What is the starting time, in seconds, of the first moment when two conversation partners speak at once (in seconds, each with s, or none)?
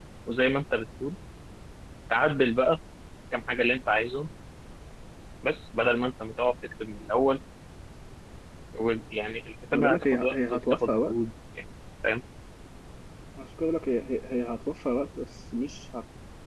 9.7 s